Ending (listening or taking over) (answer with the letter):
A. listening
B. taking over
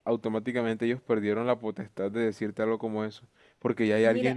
A